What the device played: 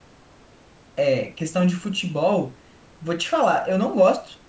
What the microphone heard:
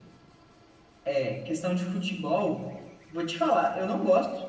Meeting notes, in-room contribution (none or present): none